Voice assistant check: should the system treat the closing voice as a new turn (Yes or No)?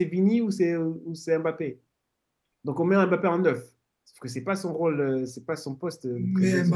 Yes